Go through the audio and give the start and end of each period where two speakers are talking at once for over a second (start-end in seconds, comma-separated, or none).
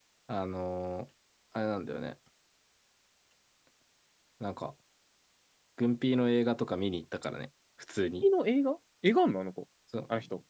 none